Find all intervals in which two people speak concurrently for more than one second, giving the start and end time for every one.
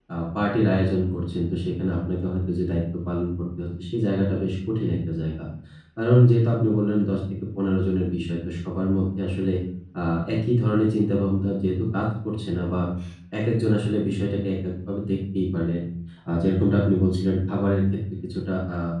none

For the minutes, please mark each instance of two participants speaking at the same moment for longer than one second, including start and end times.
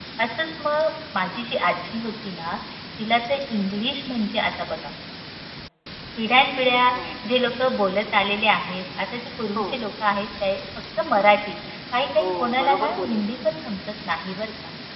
12.2-13.5

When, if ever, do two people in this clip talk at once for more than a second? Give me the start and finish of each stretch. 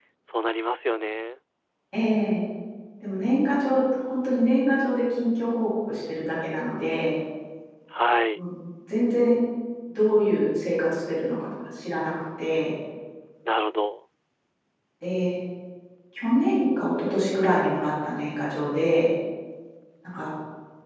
none

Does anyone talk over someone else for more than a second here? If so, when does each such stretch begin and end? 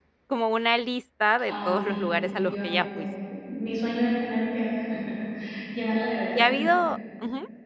1.4-3.0

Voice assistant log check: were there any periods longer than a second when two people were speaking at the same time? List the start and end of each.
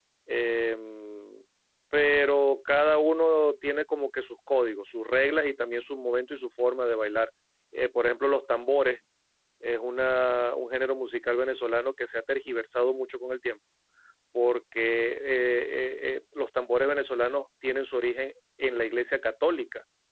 none

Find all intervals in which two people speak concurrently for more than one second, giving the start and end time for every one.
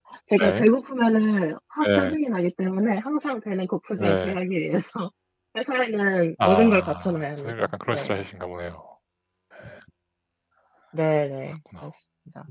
6.4-8.1

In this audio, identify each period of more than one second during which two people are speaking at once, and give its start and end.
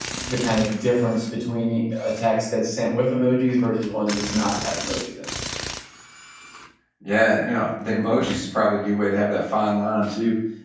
none

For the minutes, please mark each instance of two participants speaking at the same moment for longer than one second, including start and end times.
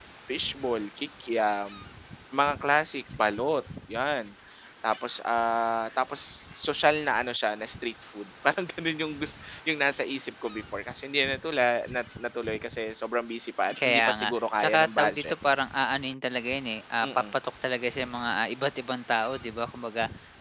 13.7-15.3

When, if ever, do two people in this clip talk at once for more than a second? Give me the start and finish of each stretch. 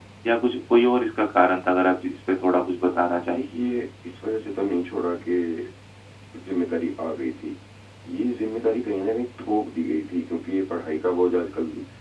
none

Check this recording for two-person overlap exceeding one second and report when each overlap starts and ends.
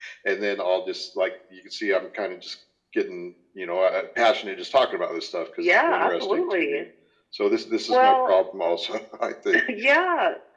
5.6-6.8

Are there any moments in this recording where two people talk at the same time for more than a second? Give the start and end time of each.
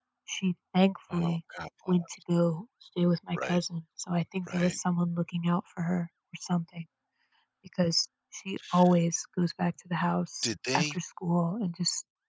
none

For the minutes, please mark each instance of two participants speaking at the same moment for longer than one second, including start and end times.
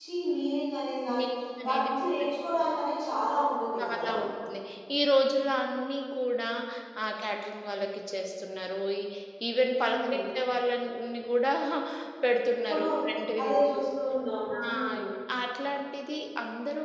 none

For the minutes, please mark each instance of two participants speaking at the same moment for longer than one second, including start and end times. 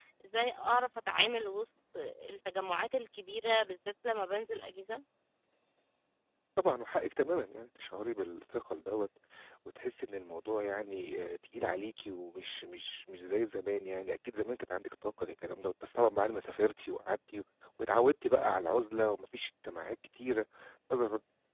none

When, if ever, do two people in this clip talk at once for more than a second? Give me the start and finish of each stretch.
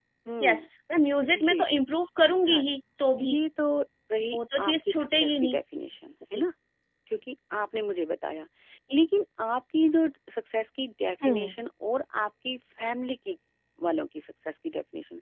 4.3-5.6

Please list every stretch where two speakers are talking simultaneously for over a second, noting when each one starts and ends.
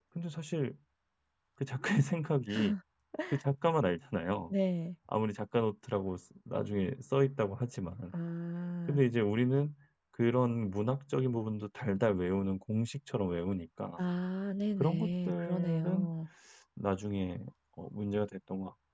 14.8-16.1

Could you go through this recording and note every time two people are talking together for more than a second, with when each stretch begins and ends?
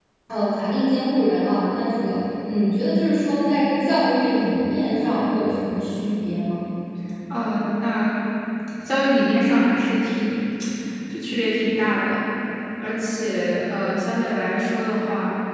none

